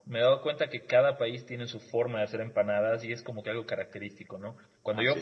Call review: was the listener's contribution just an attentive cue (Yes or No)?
Yes